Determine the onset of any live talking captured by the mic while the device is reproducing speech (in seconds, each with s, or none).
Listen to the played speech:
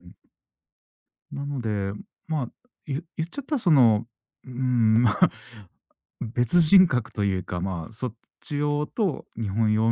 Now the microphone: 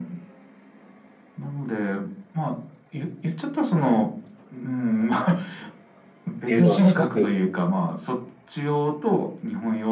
6.5 s